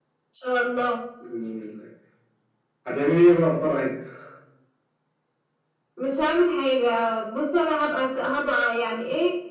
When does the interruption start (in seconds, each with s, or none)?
none